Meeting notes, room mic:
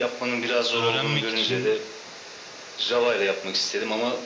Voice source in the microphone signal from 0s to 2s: both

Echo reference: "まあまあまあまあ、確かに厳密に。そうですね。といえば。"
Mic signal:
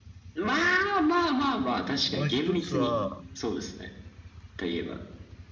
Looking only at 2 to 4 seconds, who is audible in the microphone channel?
both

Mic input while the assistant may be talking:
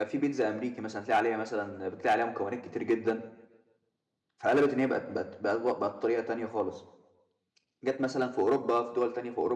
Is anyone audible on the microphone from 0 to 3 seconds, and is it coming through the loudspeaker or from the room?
user only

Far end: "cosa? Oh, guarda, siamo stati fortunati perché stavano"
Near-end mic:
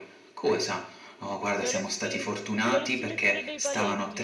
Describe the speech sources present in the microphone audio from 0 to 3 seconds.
both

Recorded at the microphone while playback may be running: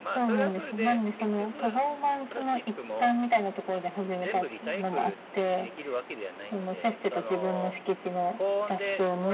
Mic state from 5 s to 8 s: both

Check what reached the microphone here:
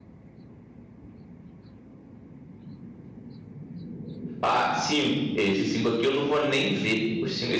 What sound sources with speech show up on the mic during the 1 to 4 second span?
neither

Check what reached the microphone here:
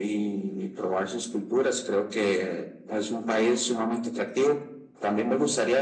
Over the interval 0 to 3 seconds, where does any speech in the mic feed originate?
echo only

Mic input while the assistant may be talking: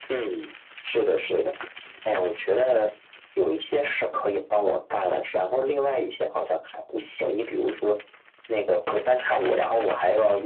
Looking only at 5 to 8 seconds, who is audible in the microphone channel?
echo only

